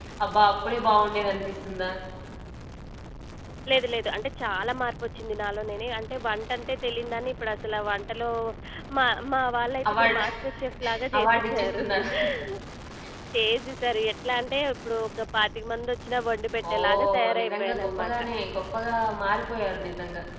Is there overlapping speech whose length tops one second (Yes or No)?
Yes